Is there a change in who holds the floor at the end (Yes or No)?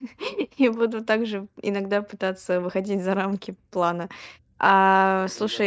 No